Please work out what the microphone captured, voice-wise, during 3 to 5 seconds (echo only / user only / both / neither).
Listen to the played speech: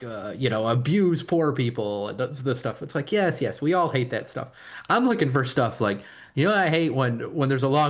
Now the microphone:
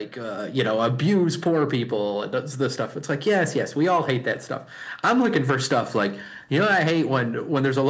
echo only